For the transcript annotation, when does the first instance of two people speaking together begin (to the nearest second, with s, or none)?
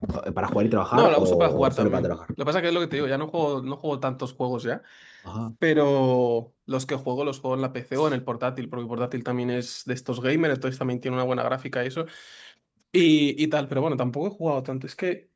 1 s